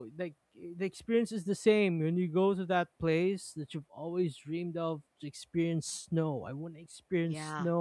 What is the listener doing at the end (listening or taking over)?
listening